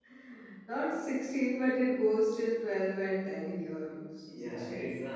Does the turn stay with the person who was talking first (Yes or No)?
No